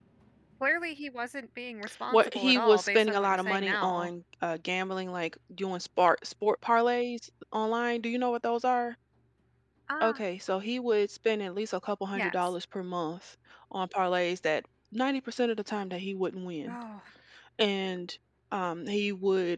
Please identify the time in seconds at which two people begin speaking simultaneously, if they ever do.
2.1 s

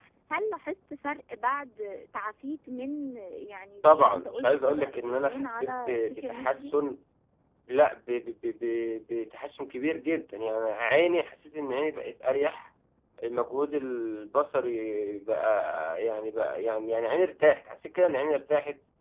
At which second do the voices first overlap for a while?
3.8 s

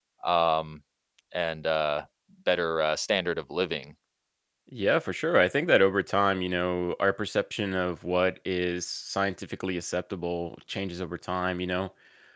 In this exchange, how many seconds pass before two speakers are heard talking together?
none

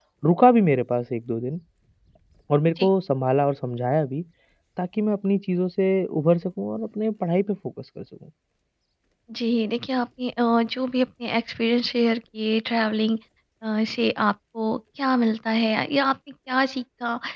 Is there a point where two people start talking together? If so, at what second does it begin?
none

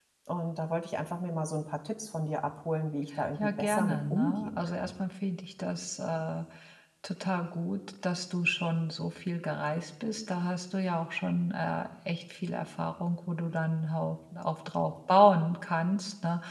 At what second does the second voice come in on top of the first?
3.4 s

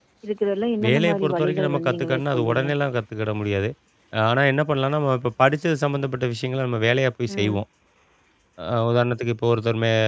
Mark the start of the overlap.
0.8 s

